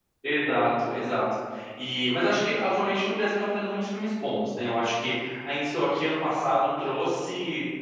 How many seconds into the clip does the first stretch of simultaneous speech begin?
none

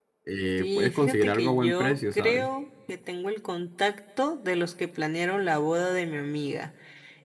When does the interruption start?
0.6 s

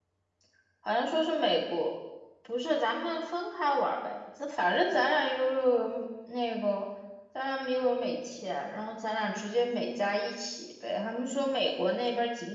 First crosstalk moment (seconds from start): none

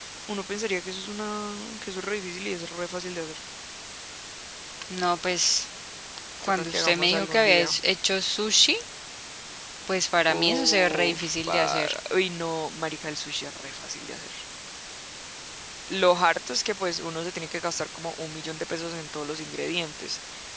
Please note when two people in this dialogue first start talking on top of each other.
6.4 s

